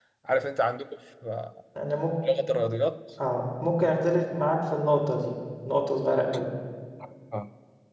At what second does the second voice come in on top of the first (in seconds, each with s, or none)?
none